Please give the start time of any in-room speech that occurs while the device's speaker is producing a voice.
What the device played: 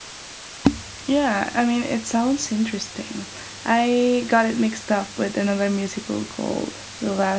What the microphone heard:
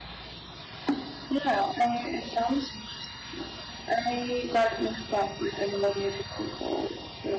none

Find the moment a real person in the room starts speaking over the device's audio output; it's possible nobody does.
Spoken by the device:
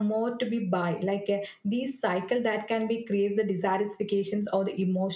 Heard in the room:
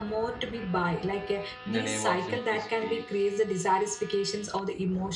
2 s

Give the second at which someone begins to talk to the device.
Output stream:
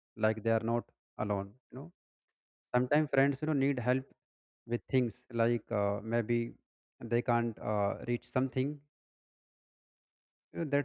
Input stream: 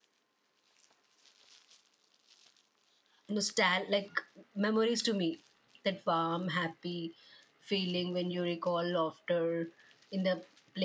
3 s

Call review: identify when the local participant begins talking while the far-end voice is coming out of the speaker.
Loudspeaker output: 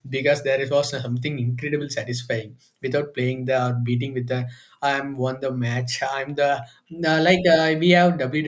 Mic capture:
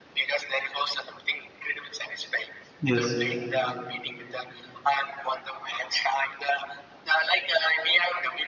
3 s

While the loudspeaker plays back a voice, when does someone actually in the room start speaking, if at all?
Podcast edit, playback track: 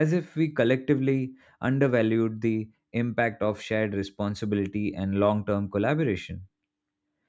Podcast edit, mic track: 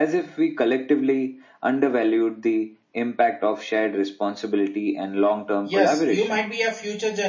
6 s

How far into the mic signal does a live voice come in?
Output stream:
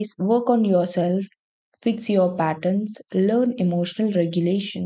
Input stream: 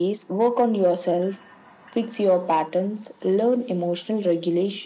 none

